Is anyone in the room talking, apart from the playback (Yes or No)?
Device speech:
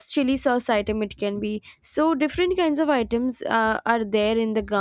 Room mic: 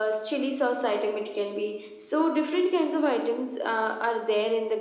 No